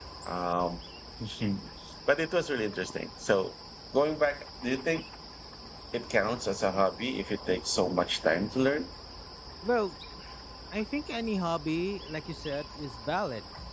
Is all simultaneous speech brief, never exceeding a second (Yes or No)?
Yes